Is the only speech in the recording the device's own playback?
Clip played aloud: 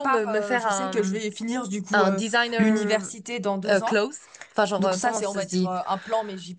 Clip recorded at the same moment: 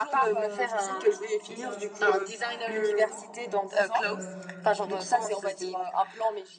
No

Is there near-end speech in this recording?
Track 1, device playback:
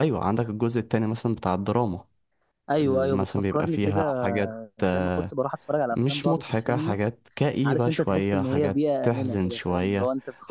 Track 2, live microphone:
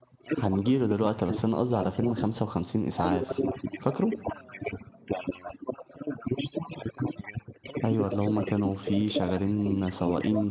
Yes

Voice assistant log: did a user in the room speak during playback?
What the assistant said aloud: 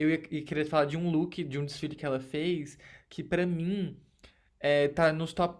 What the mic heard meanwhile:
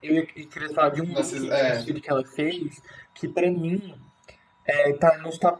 Yes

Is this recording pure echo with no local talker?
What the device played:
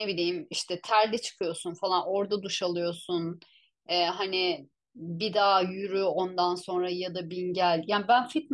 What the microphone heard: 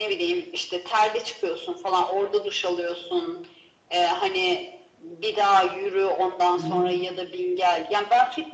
No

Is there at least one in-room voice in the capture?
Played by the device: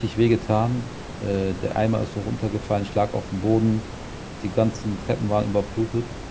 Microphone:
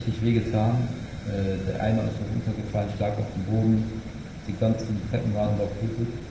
No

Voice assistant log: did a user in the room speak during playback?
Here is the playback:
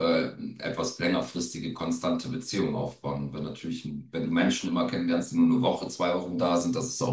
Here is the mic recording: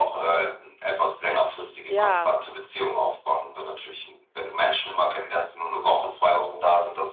Yes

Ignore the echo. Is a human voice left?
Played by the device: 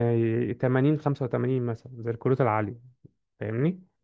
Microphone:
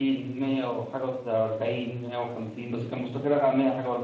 Yes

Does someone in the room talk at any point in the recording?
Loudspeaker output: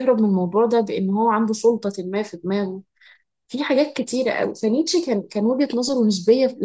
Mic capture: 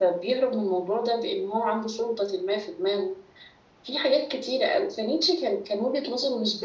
No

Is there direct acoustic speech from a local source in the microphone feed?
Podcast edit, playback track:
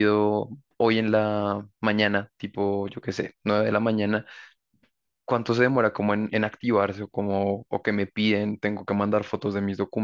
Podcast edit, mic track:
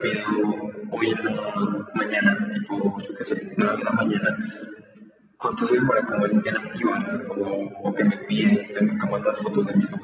No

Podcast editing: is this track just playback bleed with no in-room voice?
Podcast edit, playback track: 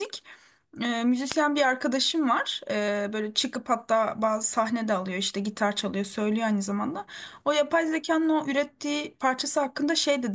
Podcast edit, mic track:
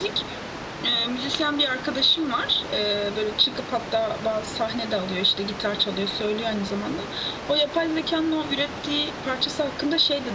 Yes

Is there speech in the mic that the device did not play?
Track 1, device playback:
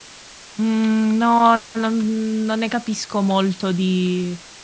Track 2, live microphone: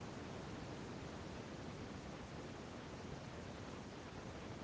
No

